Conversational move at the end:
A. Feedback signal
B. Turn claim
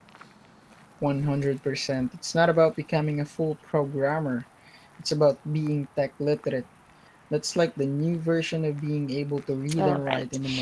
B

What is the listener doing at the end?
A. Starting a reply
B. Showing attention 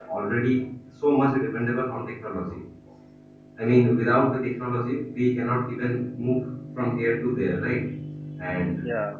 B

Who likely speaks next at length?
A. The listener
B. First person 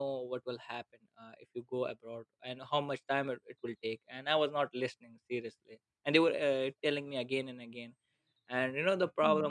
B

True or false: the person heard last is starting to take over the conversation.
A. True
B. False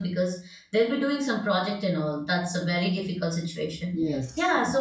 B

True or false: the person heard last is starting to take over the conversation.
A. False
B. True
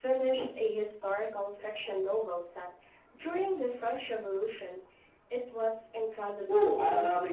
B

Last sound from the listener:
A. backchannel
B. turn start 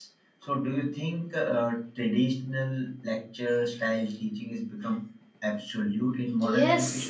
B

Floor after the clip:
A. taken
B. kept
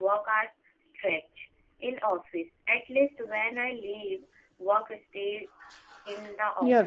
A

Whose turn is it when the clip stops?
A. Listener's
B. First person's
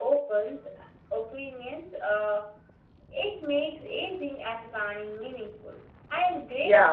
A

